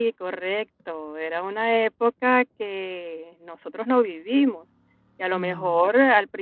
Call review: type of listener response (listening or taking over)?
listening